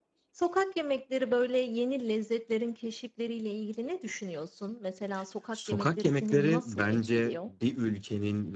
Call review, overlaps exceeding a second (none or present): present